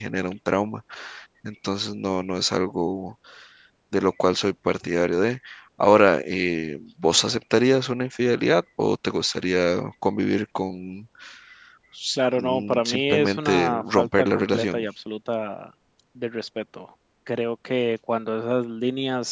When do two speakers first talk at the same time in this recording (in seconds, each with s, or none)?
12.2 s